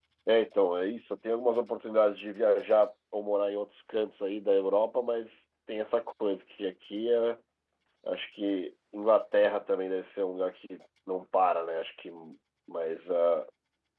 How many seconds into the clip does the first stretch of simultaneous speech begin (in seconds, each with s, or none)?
none